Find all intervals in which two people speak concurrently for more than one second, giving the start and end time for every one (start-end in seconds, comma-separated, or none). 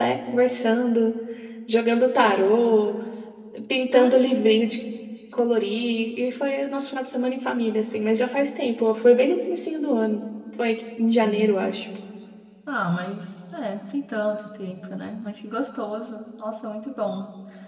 none